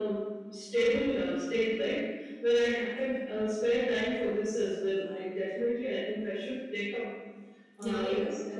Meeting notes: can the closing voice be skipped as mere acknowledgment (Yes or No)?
No